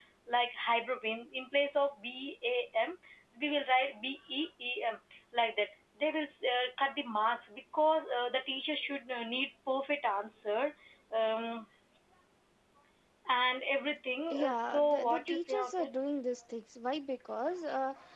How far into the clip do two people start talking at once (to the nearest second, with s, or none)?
14 s